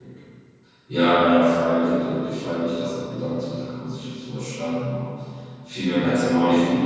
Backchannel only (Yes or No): Yes